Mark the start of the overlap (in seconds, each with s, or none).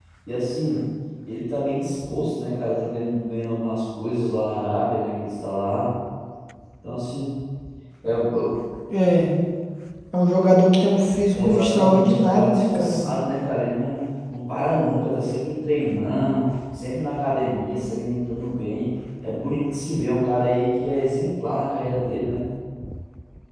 11.3 s